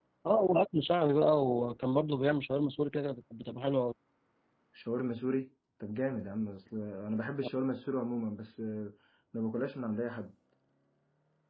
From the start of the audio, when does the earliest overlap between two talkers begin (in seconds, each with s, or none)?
none